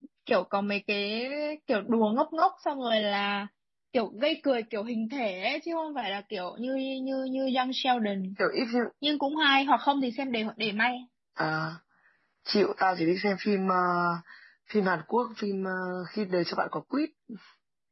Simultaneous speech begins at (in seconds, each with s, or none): none